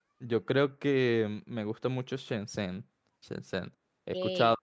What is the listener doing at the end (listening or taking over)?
listening